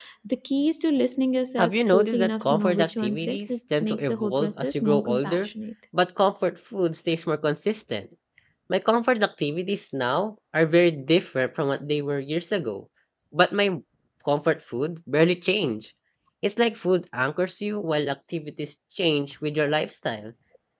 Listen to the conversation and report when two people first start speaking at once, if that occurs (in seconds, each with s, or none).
1.6 s